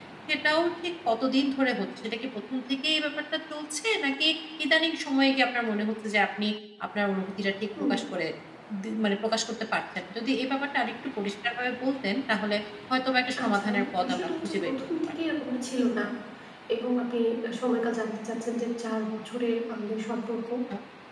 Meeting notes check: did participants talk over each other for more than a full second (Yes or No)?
Yes